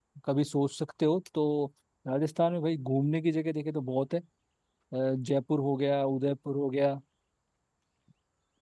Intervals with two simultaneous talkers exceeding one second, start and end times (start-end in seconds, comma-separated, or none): none